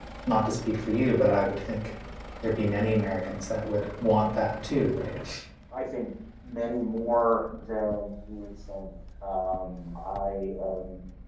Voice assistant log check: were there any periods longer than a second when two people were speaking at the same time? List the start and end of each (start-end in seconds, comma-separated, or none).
none